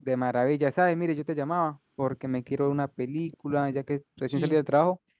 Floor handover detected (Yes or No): No